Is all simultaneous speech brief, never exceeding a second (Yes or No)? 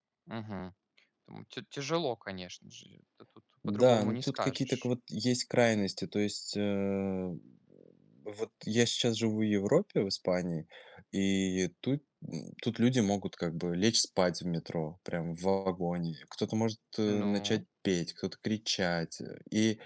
No